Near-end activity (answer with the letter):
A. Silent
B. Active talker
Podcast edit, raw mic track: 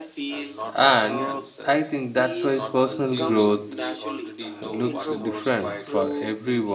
B